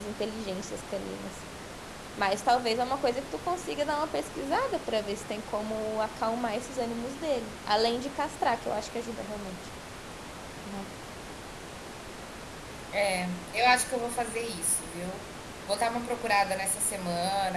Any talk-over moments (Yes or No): No